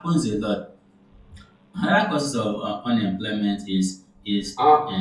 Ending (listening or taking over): listening